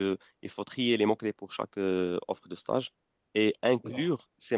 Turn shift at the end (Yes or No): No